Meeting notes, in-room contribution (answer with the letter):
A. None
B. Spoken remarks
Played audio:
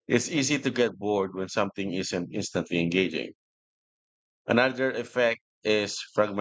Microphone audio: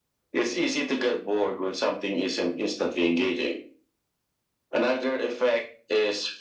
A